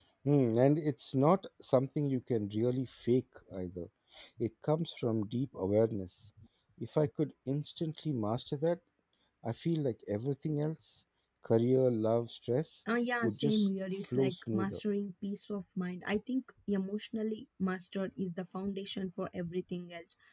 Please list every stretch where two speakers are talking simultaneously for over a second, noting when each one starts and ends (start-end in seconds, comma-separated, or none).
13.2-14.8